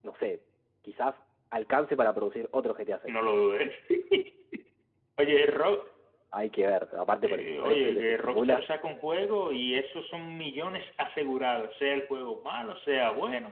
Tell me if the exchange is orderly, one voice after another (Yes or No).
No